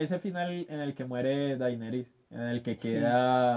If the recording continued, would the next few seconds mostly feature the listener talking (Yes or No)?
No